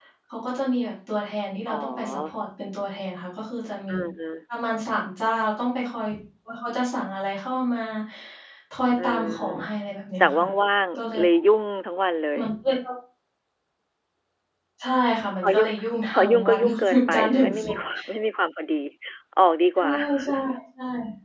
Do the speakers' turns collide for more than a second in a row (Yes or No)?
Yes